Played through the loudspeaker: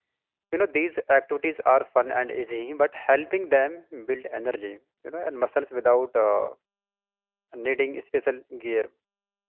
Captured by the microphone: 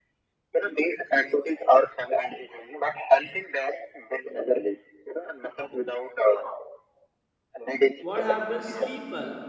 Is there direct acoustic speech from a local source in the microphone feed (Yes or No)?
Yes